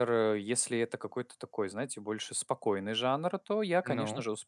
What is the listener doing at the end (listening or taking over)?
listening